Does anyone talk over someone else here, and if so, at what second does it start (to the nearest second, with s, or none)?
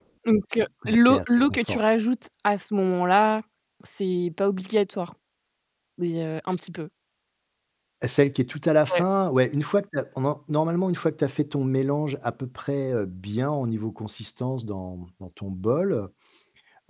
1 s